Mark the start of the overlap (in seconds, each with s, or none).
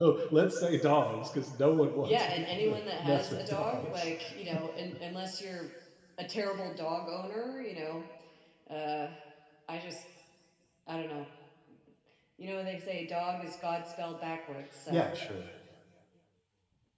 2.0 s